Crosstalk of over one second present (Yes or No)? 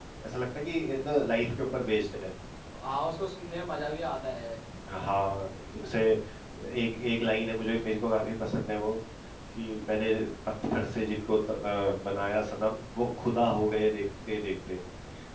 No